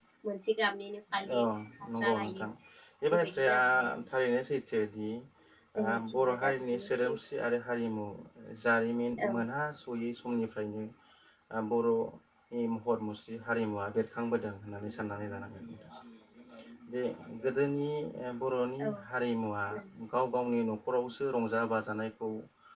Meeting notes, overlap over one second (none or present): present